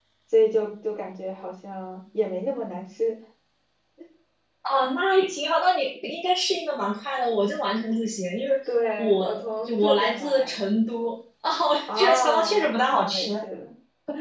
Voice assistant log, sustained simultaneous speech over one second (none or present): present